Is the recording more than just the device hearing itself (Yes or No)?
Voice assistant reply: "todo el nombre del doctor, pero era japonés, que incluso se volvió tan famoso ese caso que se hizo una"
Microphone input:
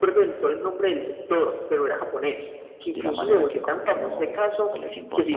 Yes